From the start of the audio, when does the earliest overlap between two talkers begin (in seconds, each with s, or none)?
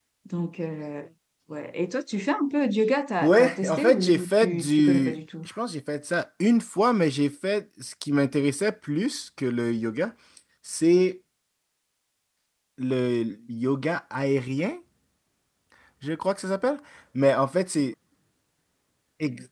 3.2 s